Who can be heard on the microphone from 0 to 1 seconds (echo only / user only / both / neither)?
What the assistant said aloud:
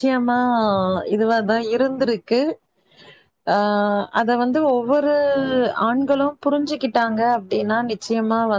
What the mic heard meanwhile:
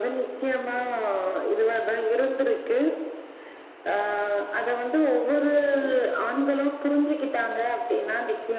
echo only